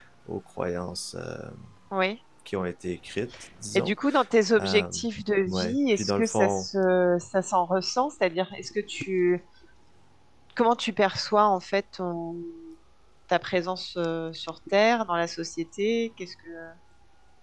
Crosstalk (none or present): present